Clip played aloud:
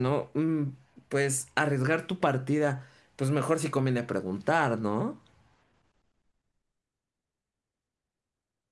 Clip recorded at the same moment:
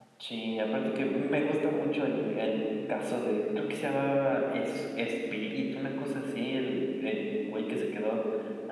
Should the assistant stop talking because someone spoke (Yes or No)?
Yes